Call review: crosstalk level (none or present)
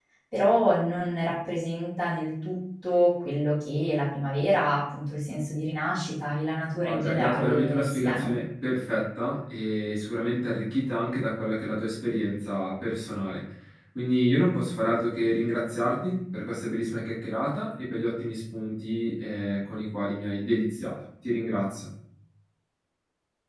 present